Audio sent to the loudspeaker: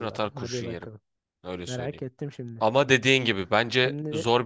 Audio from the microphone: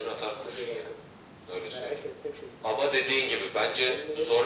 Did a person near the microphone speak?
No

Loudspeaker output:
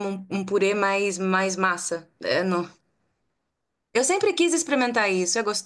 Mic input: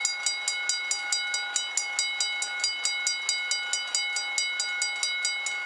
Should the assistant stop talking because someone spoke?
No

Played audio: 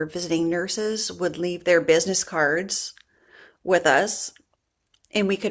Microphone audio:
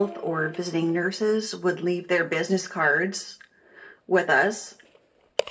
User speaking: No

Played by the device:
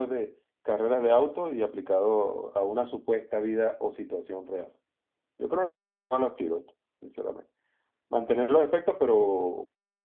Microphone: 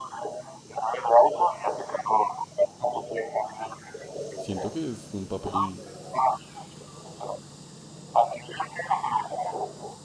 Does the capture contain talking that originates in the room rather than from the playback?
Yes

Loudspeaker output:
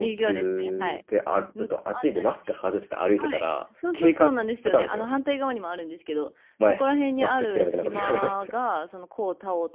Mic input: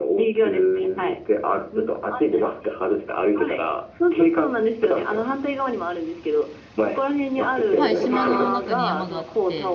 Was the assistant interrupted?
Yes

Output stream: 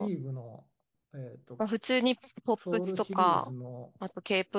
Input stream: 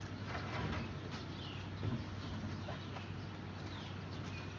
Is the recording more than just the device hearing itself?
No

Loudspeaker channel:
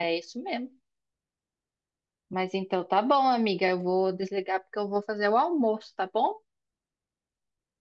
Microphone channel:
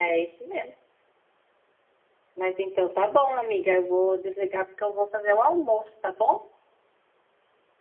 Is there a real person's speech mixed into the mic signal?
No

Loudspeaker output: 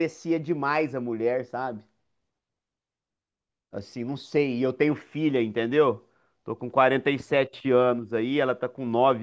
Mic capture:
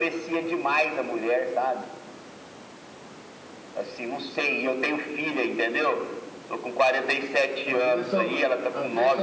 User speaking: Yes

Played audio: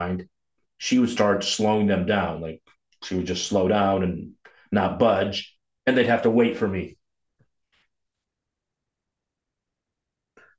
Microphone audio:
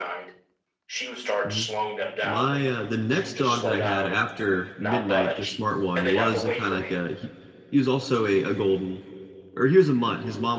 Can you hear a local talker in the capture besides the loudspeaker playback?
Yes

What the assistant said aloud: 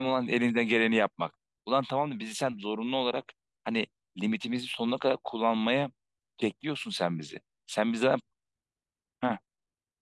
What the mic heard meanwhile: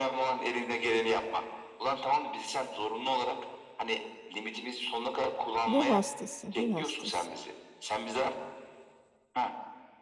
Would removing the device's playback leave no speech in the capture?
No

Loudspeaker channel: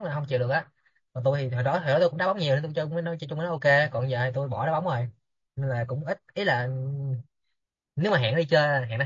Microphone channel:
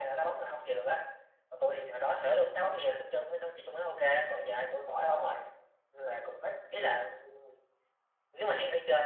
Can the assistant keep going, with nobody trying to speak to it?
Yes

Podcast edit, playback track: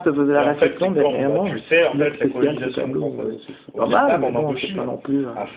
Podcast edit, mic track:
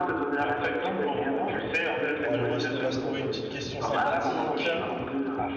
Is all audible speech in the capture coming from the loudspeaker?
No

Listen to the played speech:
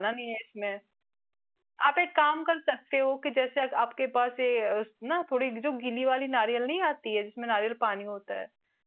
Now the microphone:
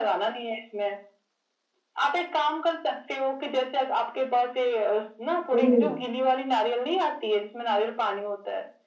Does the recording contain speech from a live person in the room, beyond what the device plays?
Yes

